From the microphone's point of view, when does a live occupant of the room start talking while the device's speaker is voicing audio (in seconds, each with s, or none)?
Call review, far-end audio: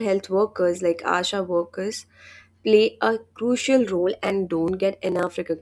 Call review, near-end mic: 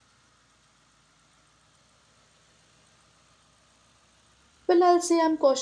4.7 s